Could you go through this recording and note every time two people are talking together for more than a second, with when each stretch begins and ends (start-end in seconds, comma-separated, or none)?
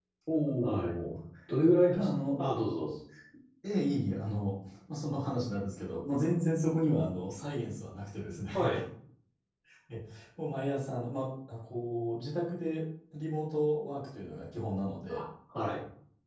none